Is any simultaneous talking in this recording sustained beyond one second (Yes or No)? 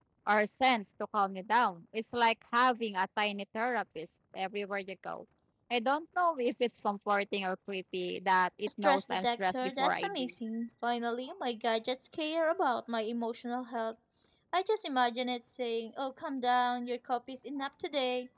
Yes